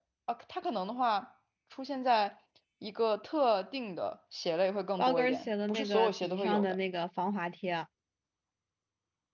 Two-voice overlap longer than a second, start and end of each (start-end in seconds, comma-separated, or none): 5.0-6.8